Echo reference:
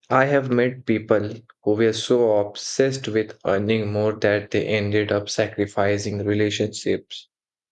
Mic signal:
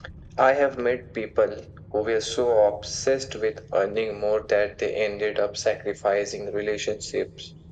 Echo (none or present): present